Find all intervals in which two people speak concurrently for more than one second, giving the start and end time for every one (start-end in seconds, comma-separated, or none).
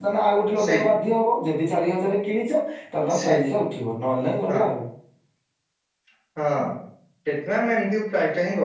none